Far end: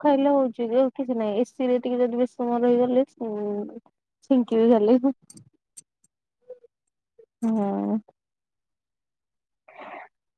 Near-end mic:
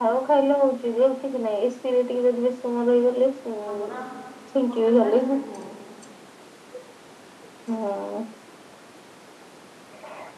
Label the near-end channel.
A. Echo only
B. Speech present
B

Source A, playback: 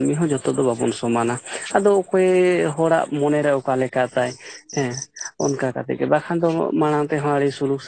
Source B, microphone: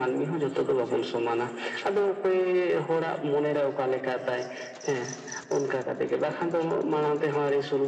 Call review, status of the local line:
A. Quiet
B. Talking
A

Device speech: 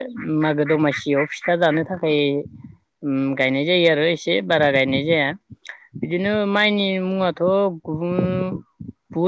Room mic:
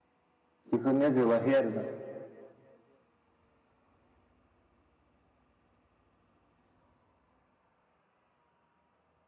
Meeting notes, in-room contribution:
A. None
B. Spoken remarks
B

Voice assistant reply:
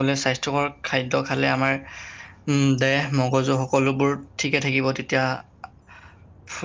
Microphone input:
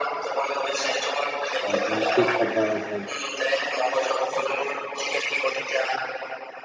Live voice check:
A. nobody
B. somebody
B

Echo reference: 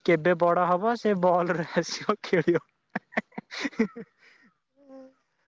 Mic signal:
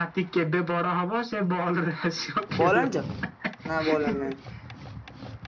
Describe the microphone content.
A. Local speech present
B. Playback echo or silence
A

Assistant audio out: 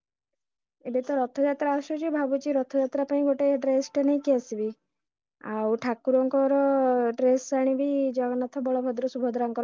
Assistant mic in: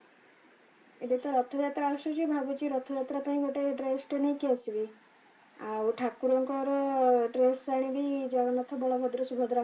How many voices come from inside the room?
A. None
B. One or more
A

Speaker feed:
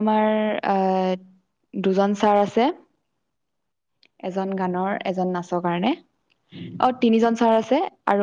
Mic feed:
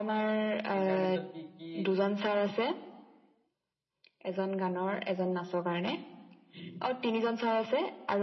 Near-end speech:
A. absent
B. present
B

